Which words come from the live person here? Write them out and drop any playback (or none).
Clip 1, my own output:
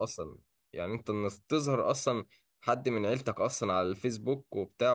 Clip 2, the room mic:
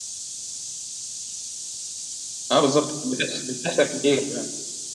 اه بالظبط بتحصل بتحصل كتير فعلا